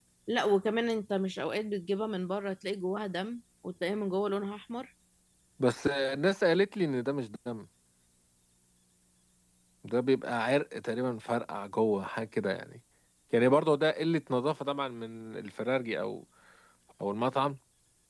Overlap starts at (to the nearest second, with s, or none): none